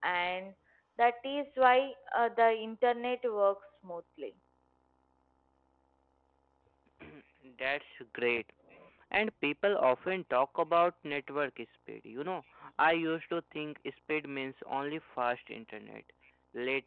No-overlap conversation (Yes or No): Yes